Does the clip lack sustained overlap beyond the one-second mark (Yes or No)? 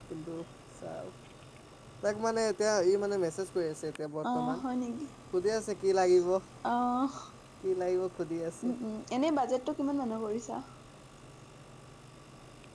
Yes